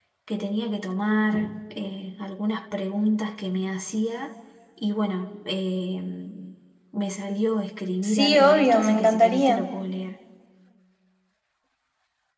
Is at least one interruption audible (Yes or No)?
Yes